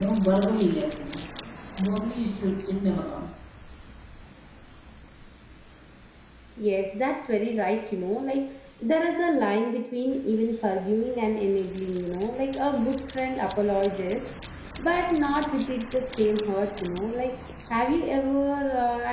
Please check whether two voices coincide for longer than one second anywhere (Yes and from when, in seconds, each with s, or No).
No